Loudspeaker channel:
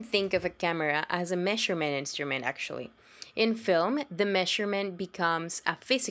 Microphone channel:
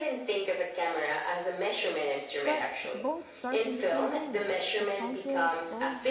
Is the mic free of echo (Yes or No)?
No